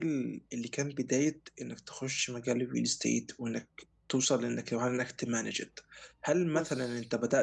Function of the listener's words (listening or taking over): listening